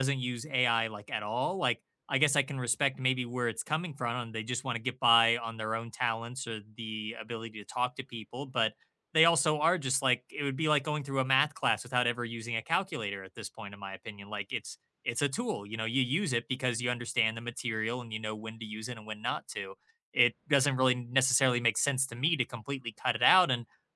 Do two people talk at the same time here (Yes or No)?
No